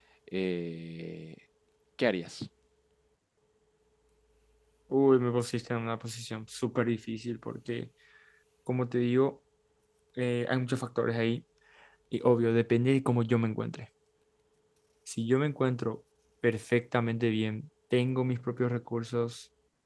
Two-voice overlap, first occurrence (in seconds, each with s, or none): none